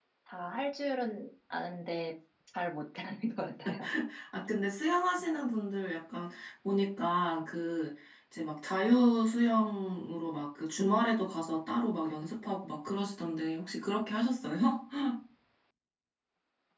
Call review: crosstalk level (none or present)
none